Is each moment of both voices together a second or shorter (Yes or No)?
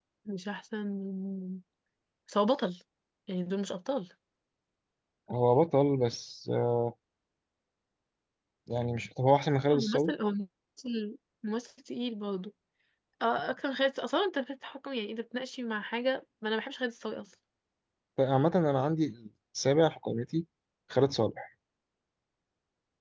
Yes